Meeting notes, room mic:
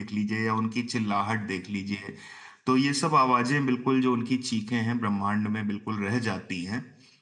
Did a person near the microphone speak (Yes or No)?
Yes